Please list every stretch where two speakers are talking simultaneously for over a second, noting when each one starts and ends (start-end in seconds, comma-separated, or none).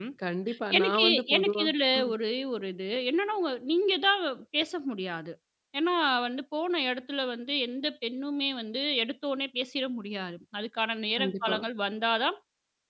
0.8-2.1